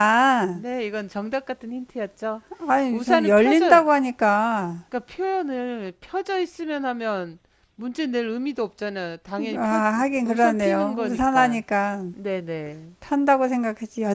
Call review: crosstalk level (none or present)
present